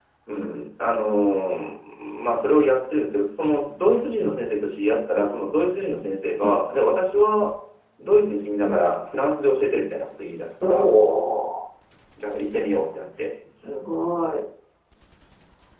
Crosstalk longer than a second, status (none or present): none